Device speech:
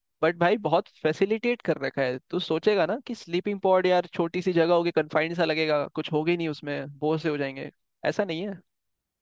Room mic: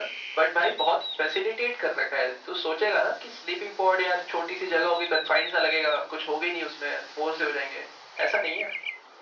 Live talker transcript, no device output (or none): none